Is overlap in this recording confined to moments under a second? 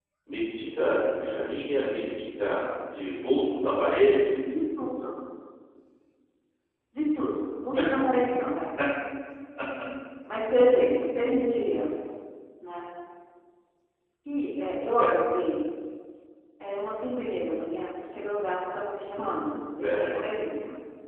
Yes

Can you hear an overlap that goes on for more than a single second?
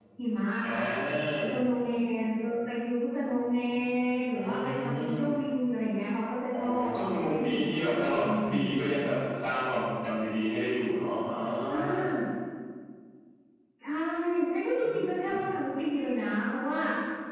Yes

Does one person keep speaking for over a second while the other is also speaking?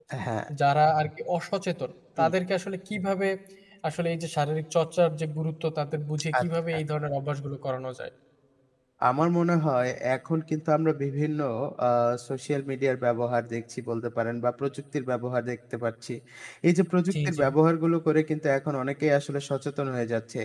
No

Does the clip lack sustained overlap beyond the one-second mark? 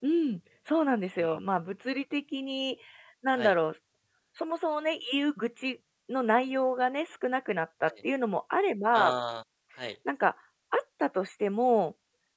Yes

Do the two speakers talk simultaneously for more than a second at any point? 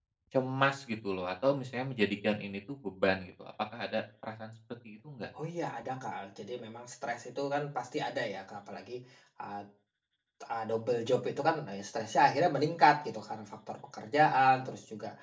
No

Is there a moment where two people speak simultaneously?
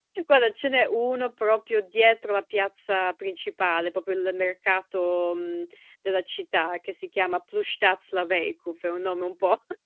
No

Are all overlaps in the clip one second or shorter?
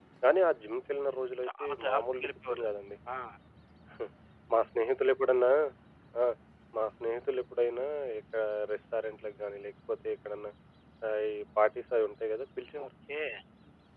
No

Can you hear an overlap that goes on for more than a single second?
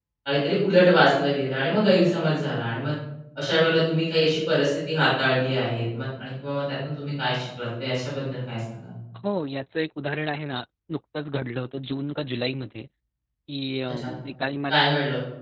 No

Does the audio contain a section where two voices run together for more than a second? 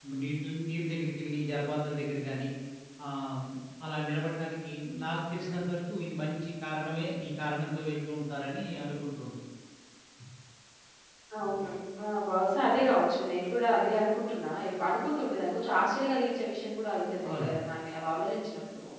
No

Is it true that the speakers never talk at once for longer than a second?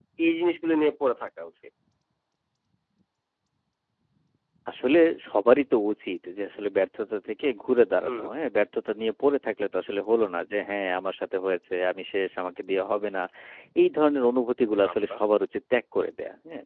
Yes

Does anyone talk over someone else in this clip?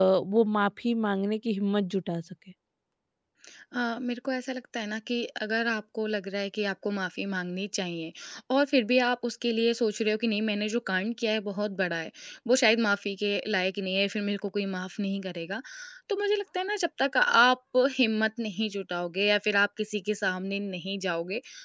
No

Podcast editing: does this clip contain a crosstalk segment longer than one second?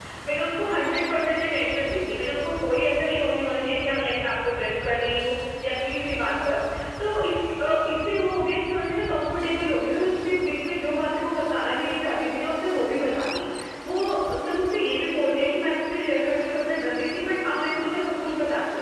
No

